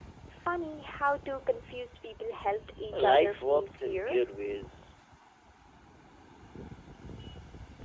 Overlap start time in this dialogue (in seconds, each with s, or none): 2.9 s